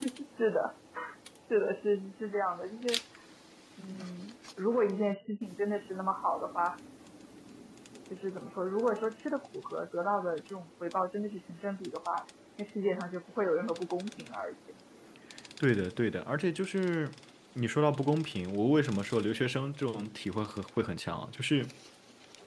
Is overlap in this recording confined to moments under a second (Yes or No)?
Yes